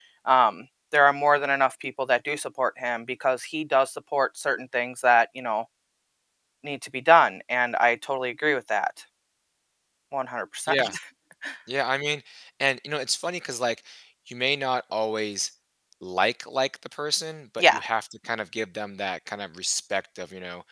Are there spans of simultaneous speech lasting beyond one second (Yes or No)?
No